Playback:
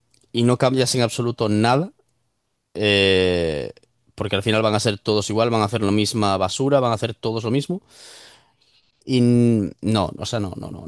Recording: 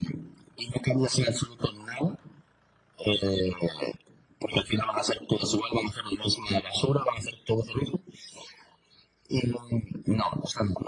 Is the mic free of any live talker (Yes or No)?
Yes